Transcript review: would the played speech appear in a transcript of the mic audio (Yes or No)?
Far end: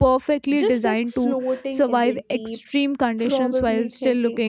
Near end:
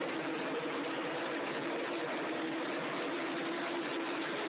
No